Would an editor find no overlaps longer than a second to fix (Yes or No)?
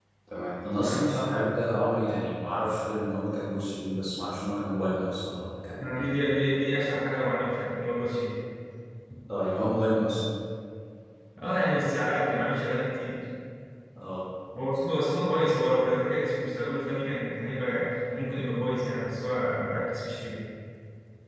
Yes